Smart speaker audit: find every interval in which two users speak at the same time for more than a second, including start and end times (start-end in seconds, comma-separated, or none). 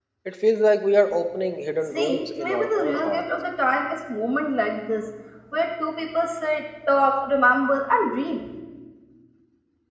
1.9-3.2